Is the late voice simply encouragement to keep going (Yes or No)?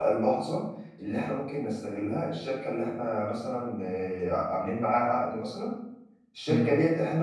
Yes